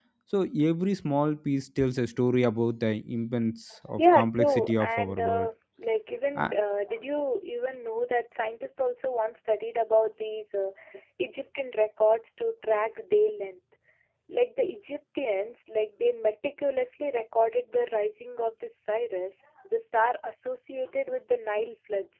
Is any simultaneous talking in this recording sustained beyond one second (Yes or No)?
Yes